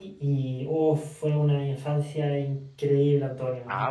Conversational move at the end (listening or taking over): taking over